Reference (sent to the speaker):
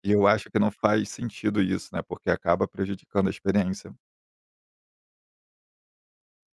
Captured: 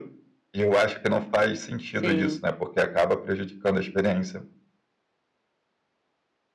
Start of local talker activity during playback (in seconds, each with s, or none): 1.9 s